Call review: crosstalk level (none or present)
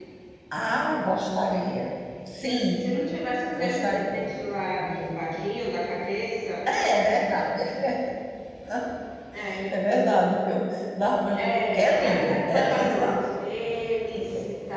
present